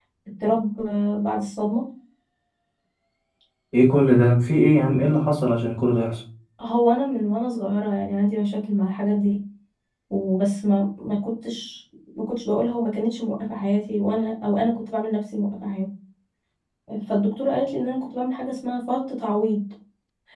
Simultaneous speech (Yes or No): No